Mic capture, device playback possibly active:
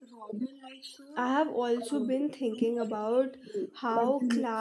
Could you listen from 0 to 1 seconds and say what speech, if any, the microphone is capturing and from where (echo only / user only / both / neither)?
echo only